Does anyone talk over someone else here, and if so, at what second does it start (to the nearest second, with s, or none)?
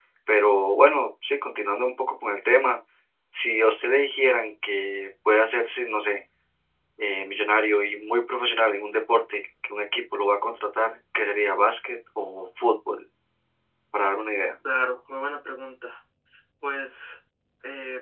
none